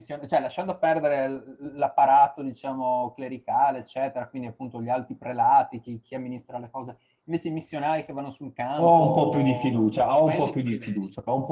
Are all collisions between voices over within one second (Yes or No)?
No